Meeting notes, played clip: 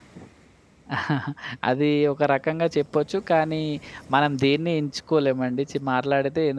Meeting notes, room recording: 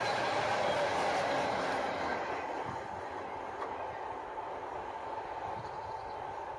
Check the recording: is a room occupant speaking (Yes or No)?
No